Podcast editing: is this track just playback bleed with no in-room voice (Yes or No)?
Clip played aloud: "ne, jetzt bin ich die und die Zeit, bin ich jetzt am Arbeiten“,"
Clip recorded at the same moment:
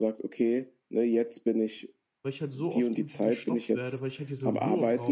No